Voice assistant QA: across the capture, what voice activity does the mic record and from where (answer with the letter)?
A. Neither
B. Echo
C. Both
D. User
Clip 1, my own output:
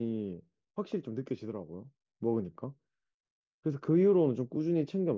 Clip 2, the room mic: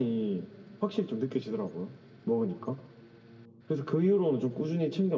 B